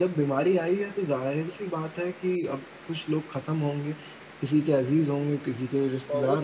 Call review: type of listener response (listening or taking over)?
taking over